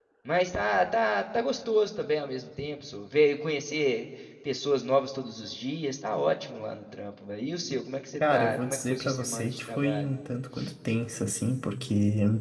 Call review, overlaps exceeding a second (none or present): present